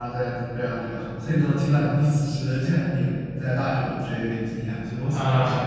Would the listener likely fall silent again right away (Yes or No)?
No